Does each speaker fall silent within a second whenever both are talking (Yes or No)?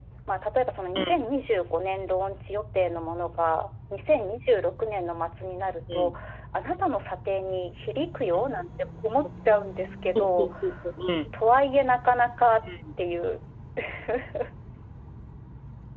Yes